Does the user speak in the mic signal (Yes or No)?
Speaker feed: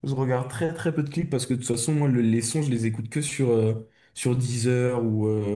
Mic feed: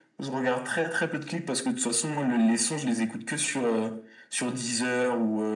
No